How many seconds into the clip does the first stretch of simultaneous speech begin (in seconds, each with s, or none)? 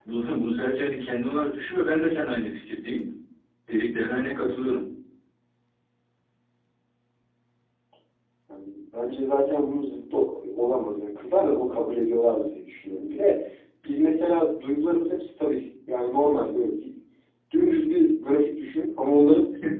none